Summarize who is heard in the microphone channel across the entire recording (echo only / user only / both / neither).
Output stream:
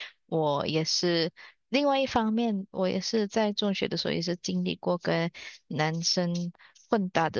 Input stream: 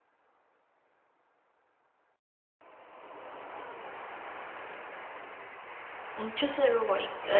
user only